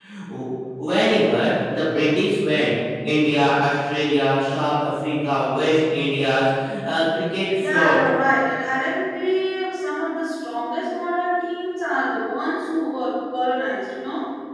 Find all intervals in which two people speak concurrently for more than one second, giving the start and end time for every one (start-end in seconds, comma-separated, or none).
none